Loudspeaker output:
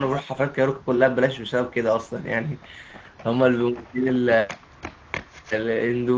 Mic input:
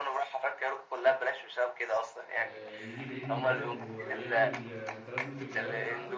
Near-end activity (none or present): present